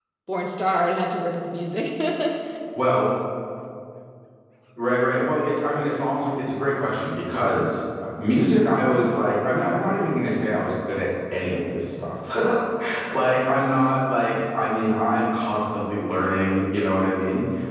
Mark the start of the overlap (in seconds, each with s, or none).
none